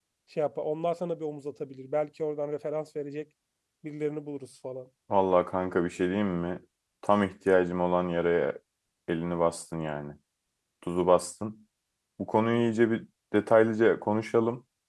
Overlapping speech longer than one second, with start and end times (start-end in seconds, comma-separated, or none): none